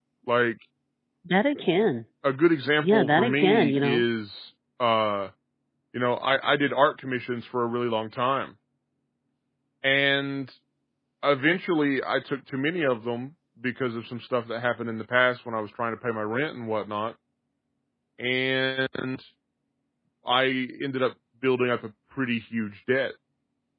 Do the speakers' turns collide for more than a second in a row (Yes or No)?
Yes